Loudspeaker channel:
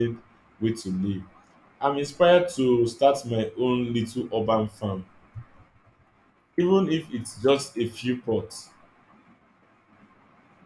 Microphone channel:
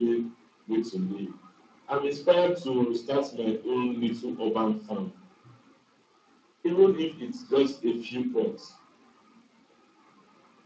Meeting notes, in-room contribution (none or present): none